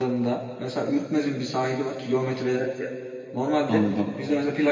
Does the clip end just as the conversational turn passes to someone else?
No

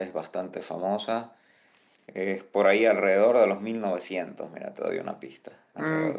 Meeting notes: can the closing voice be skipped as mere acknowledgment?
No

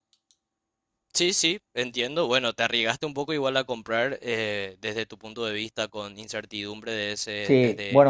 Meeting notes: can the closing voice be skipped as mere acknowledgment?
No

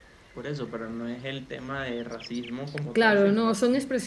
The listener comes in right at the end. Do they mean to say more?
Yes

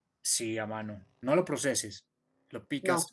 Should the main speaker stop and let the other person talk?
No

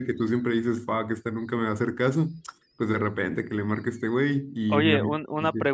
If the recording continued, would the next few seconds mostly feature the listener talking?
Yes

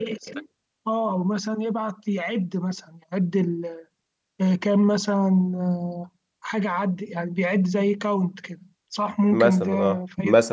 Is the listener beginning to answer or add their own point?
Yes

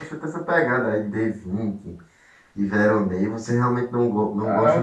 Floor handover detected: Yes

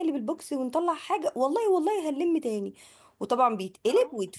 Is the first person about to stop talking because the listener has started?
No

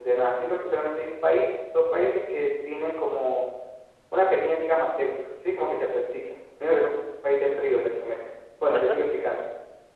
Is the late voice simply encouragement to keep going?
Yes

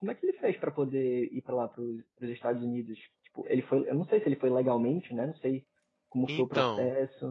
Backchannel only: No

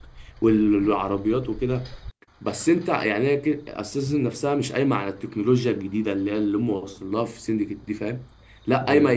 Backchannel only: Yes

